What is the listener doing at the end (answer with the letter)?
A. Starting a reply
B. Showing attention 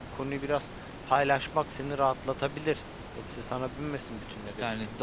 A